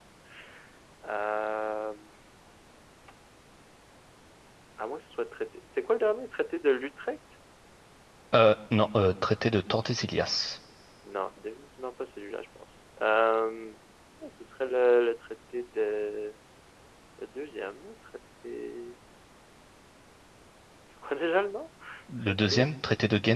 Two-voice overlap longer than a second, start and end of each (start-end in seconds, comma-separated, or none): none